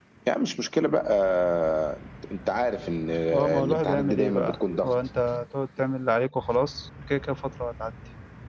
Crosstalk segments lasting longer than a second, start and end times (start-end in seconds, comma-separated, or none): 3.3-4.9